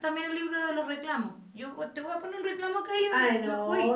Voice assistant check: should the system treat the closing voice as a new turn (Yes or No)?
Yes